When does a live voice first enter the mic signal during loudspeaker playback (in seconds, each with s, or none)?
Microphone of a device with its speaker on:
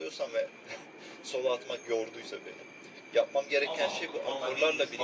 3.6 s